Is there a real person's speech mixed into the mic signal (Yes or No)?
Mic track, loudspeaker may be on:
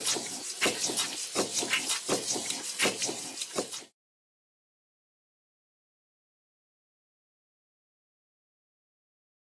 No